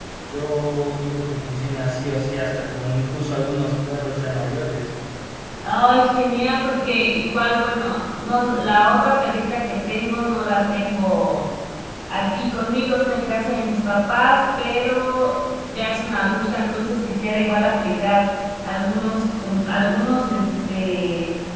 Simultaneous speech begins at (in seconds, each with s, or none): none